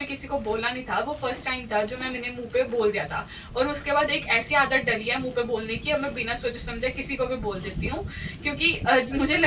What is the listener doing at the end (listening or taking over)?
listening